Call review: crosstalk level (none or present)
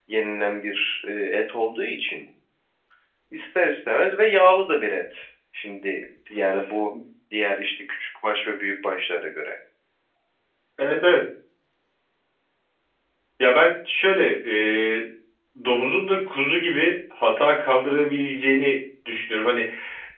none